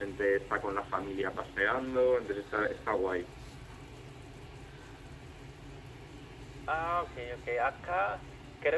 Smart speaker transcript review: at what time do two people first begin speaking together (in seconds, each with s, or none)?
none